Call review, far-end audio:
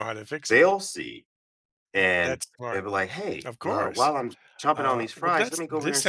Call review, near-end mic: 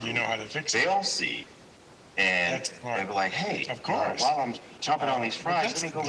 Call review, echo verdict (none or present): present